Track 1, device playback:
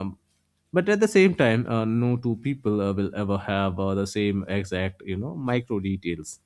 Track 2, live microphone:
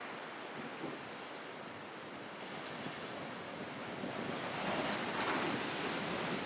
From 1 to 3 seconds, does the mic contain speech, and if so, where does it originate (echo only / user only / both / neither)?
neither